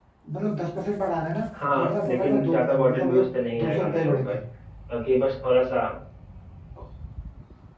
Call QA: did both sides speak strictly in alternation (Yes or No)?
No